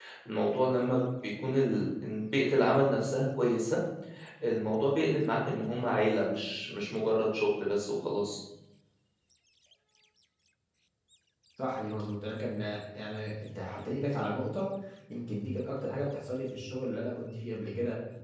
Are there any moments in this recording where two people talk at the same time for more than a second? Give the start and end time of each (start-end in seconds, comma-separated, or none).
none